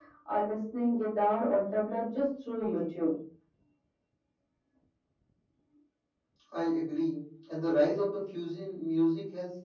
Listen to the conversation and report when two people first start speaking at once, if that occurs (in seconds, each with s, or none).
none